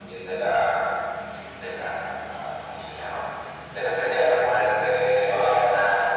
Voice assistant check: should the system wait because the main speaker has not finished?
Yes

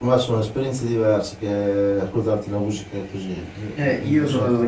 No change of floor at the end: No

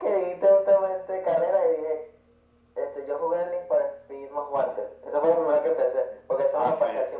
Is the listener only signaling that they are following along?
Yes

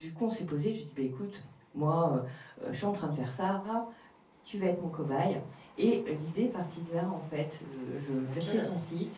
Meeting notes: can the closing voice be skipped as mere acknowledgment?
Yes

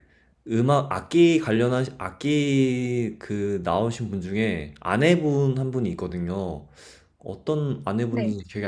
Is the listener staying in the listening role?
Yes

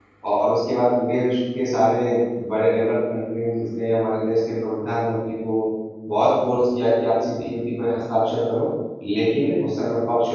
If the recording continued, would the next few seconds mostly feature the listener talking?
No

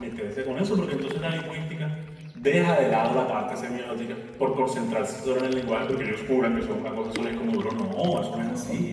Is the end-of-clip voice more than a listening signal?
Yes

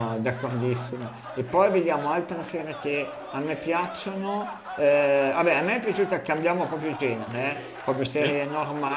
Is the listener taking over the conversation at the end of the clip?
No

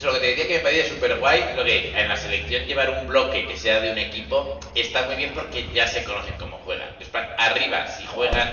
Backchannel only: Yes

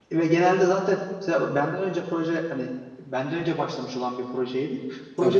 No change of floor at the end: Yes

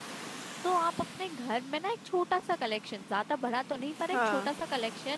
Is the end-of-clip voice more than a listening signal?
No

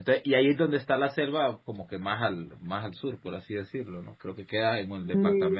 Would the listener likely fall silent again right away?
Yes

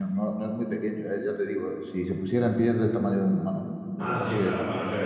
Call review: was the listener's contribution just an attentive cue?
No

